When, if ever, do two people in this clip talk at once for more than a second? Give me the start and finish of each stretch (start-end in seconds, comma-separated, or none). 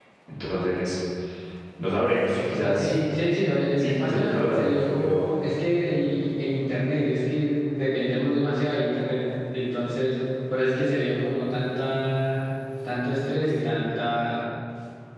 3.8-5.3